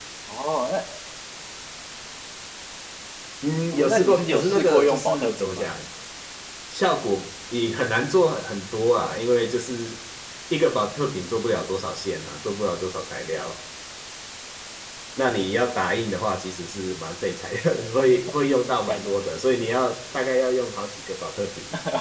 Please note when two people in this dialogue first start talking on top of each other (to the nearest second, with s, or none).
4 s